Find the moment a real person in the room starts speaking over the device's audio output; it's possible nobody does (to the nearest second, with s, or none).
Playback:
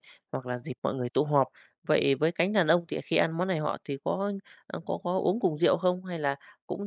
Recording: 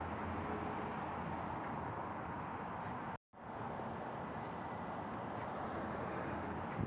none